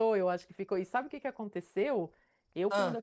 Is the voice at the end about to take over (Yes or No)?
No